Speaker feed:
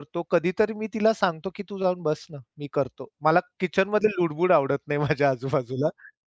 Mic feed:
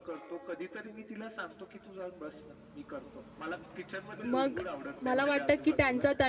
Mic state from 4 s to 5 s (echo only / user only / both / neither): both